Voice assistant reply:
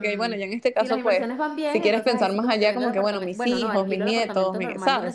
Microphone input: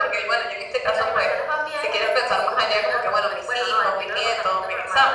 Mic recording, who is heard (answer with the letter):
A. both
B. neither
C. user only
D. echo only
D